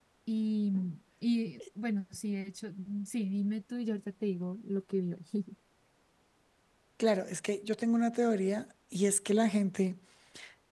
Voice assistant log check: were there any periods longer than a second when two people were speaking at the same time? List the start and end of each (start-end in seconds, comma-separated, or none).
none